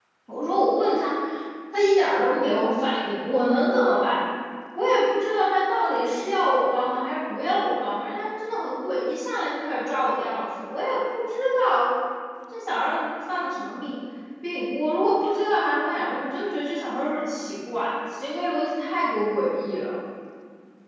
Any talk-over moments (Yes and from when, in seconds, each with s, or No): No